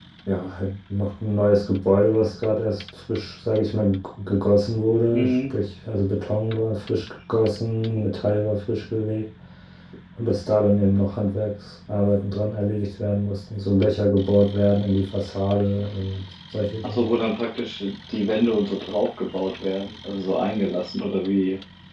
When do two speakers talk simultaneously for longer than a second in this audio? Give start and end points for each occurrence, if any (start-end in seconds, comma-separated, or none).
none